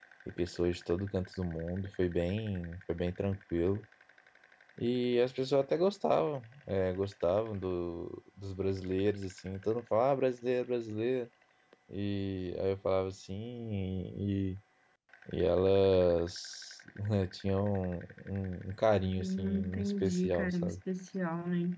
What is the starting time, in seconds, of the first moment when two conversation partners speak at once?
19.2 s

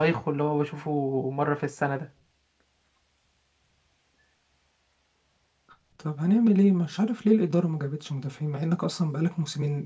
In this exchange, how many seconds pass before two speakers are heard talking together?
none

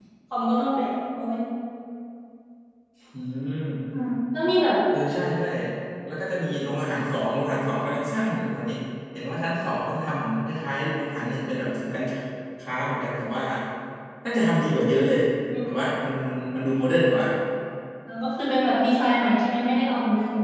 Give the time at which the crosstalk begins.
none

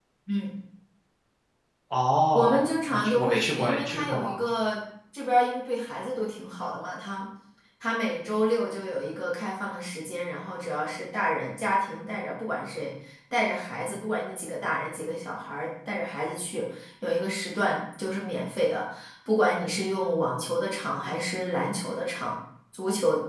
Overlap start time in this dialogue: 2.3 s

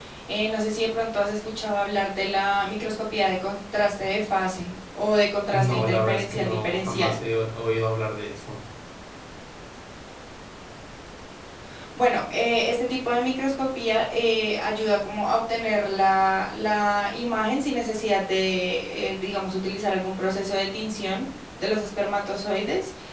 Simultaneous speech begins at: 5.5 s

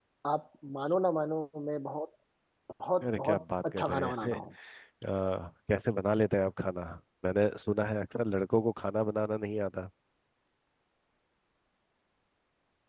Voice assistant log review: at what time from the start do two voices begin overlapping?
3.0 s

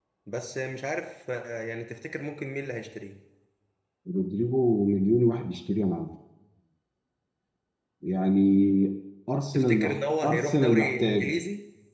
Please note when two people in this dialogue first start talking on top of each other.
9.5 s

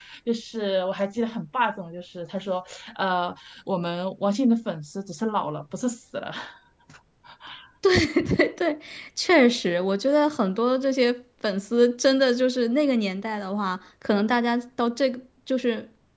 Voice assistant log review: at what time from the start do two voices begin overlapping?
none

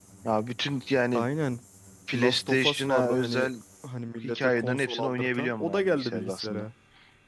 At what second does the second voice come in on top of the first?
2.1 s

